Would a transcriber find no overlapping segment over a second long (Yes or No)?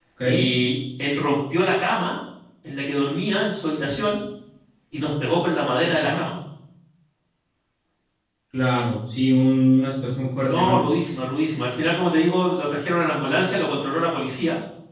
Yes